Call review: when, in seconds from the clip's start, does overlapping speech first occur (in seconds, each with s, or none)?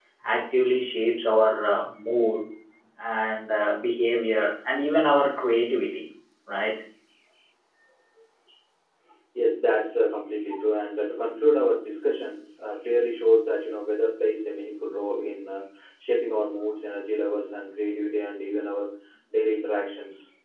none